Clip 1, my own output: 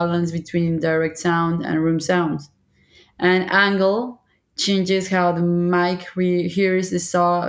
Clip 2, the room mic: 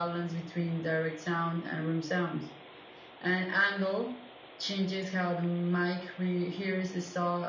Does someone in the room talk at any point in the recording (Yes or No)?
No